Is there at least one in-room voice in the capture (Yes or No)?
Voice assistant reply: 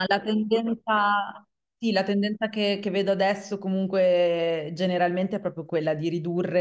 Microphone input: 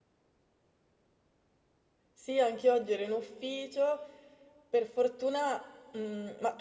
Yes